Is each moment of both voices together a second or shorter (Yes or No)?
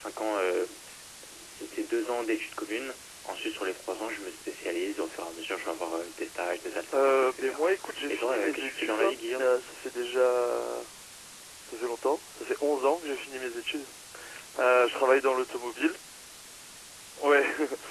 No